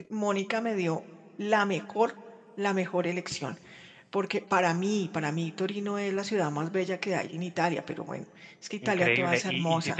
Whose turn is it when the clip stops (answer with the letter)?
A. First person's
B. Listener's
B